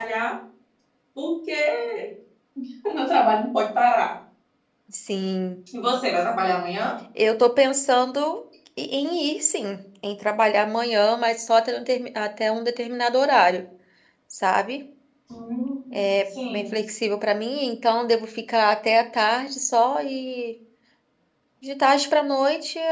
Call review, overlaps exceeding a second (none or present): none